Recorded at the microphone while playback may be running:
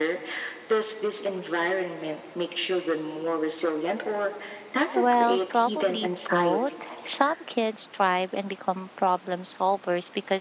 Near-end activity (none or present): present